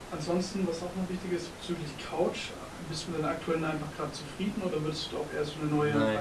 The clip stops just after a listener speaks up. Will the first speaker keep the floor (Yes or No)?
No